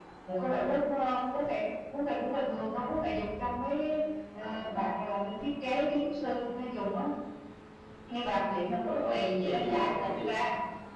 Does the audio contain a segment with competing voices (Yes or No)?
Yes